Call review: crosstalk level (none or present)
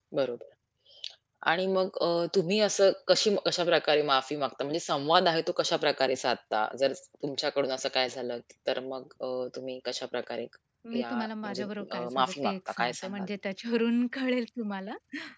present